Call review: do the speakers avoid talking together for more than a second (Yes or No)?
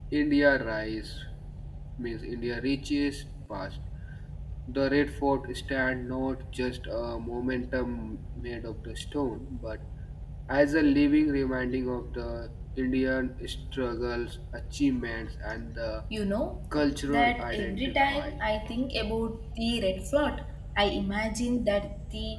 No